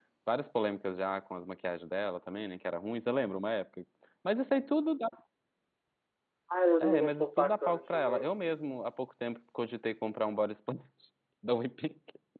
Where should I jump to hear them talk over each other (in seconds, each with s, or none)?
6.8 s